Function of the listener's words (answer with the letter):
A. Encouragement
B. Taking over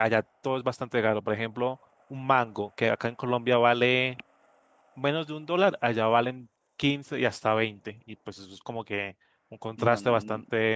B